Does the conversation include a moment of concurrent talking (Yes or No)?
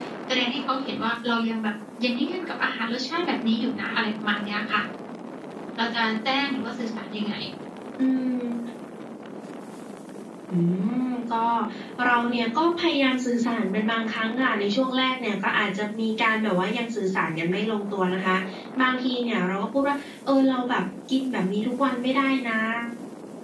No